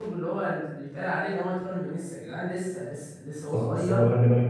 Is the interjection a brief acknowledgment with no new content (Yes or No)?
No